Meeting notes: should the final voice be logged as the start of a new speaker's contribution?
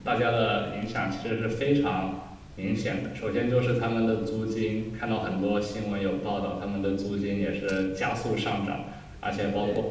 No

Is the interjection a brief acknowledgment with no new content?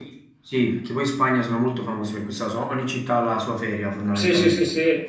No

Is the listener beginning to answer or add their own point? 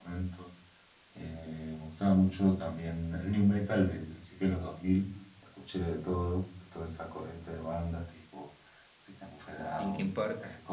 No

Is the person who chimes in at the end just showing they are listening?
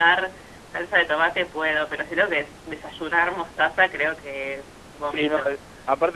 No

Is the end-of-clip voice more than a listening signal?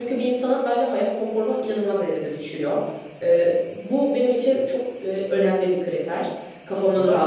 Yes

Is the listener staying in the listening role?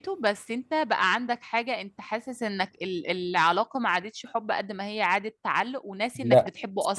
No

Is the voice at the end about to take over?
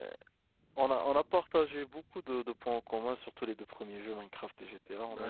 Yes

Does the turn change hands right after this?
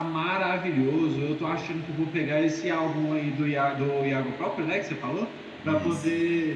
No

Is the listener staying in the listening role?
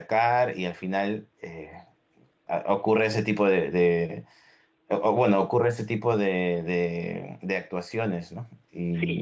No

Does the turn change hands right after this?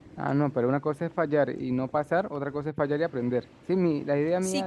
Yes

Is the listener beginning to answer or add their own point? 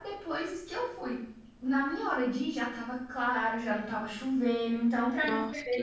Yes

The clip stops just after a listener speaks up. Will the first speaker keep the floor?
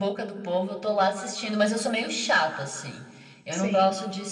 Yes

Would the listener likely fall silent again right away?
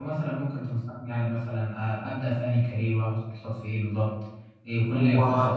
Yes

